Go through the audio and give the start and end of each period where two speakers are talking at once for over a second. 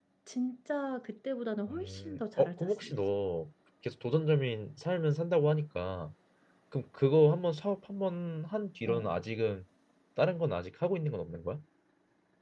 1.7-3.2

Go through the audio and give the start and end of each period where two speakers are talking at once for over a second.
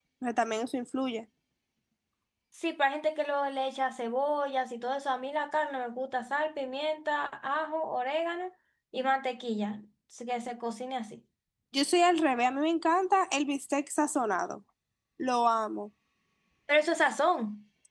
none

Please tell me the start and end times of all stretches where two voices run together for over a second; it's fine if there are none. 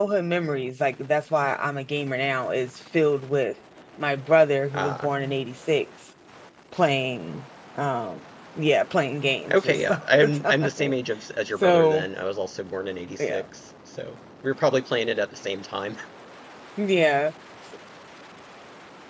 9.5-10.9

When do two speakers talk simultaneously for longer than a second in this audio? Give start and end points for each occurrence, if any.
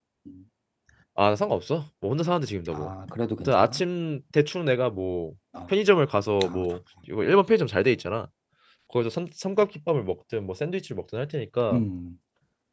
none

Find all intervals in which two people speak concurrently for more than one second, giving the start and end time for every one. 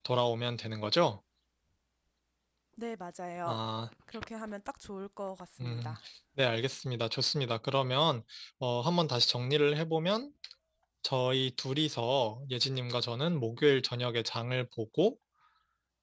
none

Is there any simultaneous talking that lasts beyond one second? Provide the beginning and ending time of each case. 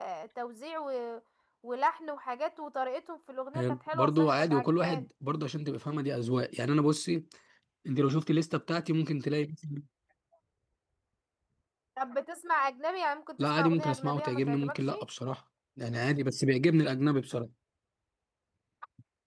3.5-5.0, 13.4-14.9

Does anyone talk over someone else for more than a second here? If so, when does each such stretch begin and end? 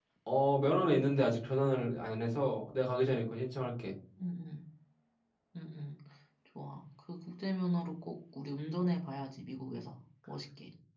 none

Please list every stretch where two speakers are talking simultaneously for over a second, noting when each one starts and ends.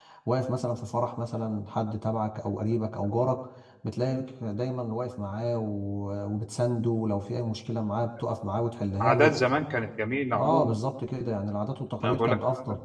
none

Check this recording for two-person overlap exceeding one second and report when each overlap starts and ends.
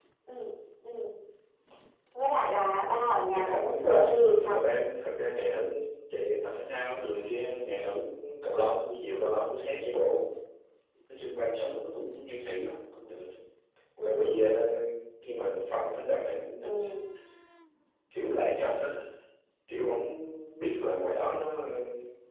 3.3-4.6

